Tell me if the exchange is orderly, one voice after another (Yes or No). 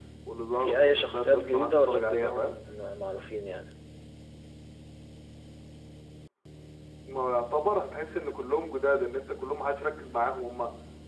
No